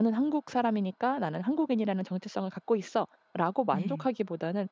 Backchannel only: Yes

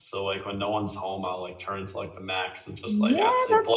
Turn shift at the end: Yes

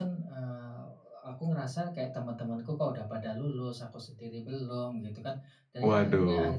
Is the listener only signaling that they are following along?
Yes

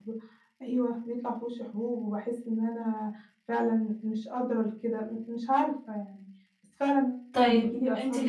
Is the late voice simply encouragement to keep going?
No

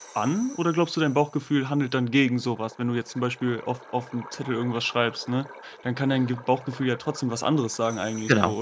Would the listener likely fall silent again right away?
No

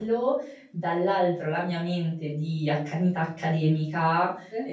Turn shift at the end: No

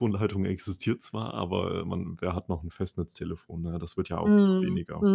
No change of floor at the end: No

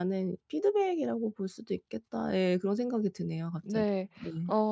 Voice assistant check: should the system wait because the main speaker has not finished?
No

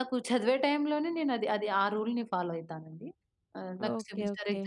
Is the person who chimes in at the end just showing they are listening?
Yes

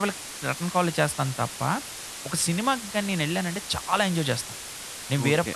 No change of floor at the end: No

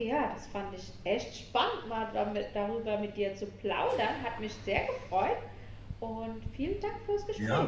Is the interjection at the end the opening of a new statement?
Yes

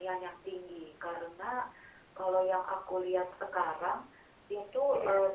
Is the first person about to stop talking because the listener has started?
No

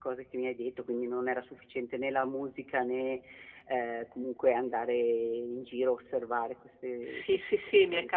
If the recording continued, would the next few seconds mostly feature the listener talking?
Yes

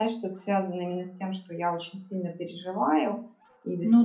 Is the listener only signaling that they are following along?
Yes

